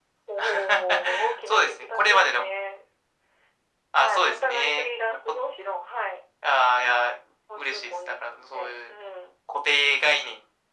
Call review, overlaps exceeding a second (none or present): present